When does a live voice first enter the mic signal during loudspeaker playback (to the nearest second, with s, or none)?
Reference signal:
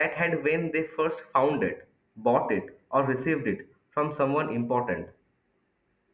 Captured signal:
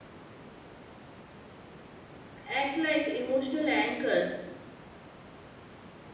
2 s